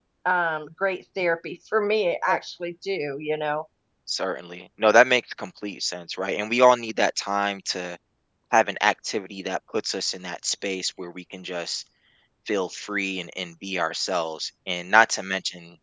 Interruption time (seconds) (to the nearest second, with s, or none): none